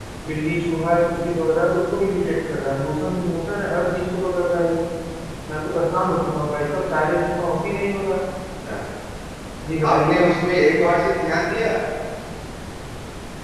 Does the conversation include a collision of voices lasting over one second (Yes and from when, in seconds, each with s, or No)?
No